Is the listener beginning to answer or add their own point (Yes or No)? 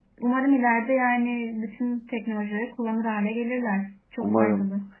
Yes